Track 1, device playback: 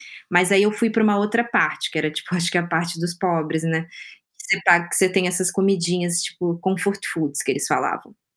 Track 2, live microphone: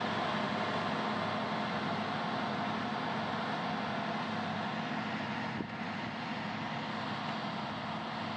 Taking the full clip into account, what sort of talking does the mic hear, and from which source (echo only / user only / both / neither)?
neither